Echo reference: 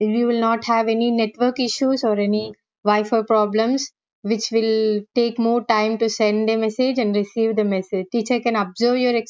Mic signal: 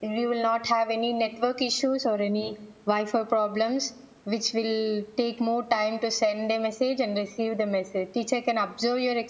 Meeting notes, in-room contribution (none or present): none